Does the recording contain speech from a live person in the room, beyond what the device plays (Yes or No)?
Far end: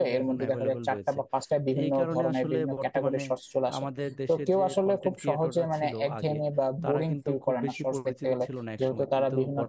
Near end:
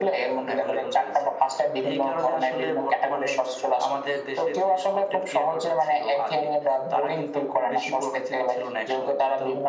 No